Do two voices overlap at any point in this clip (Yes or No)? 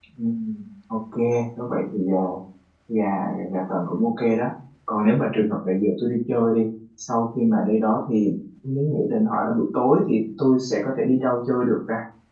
No